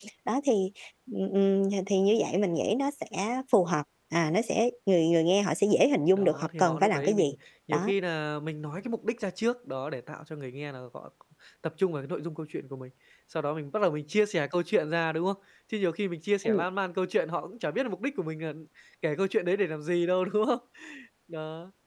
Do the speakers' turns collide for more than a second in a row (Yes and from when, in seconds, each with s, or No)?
Yes, from 6.2 s